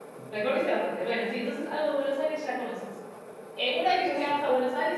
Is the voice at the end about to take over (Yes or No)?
No